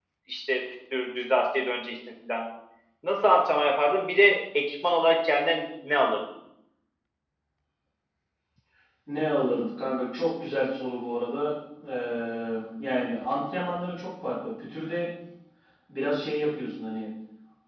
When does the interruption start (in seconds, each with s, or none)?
none